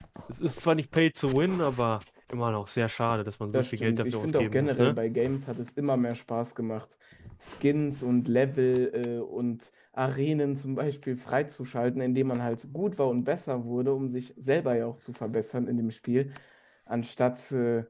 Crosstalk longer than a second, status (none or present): present